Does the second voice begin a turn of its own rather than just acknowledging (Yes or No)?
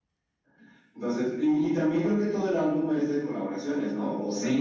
Yes